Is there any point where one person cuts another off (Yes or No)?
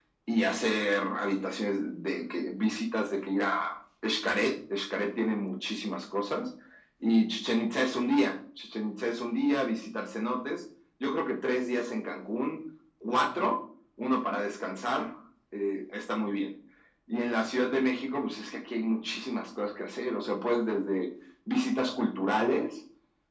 No